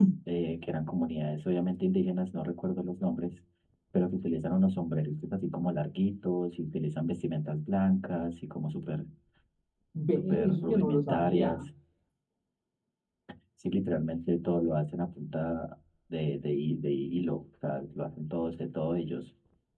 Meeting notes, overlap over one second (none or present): present